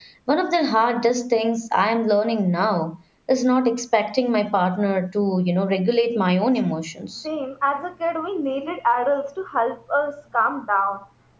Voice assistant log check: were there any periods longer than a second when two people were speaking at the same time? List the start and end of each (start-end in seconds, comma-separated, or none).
none